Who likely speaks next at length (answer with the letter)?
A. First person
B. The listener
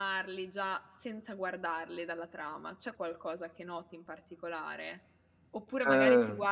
A